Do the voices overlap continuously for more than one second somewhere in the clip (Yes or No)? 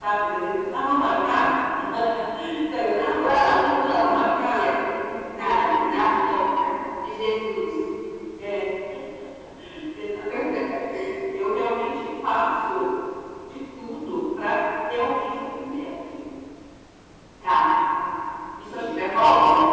Yes